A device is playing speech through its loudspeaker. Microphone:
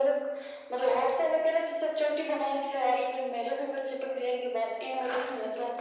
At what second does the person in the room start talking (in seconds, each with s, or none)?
none